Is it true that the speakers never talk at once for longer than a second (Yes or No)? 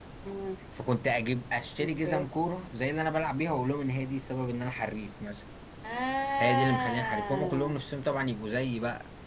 No